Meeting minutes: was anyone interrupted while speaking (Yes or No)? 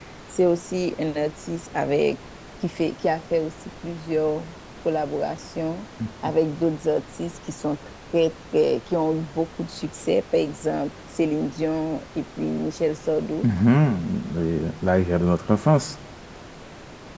No